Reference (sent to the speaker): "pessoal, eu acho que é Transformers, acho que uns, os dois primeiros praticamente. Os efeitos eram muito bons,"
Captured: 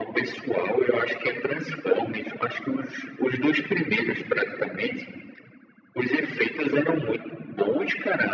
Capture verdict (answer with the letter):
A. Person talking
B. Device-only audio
B